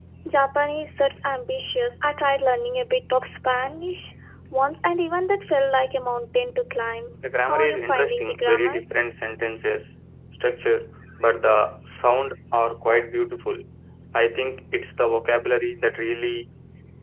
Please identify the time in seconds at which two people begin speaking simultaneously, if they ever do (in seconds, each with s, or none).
7.2 s